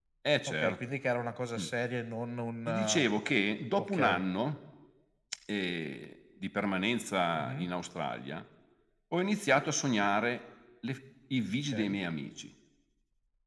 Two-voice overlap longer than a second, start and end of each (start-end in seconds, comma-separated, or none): none